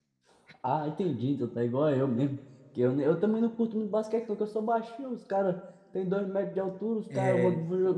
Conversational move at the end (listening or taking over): listening